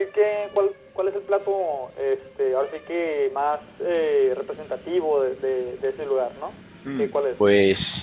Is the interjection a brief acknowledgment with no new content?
No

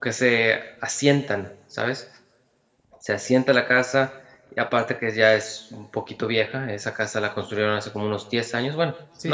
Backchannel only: No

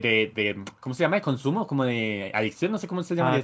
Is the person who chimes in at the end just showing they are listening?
No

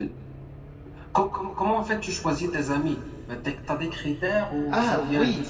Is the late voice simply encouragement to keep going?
No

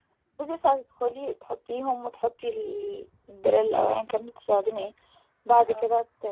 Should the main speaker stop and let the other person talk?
No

